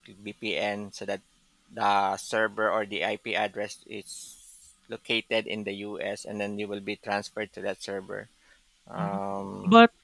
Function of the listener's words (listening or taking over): taking over